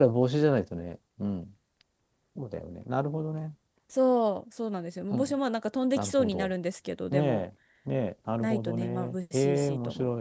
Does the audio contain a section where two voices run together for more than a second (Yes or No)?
Yes